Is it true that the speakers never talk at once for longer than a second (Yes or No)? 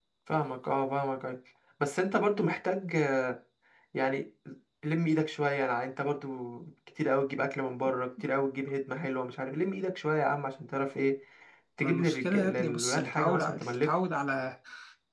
No